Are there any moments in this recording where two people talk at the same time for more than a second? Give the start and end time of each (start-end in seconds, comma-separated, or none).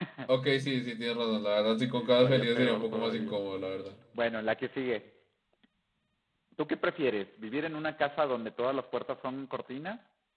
2.0-3.4